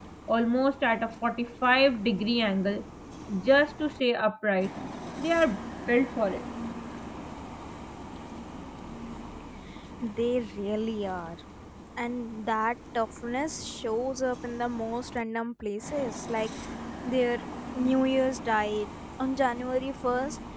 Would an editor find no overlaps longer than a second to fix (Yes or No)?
Yes